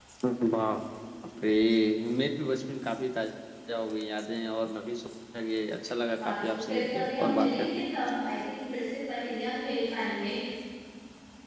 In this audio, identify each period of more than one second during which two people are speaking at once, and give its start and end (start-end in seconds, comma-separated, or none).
6.2-7.8